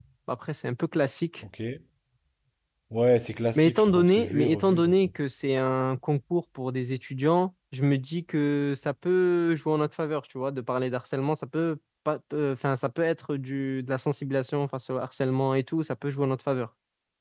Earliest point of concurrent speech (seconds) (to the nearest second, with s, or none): 4 s